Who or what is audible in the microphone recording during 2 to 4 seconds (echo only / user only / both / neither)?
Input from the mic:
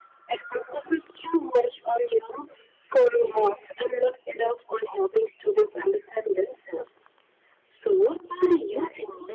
echo only